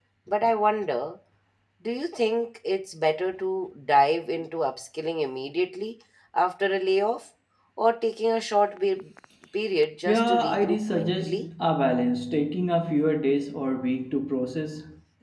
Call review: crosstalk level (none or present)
present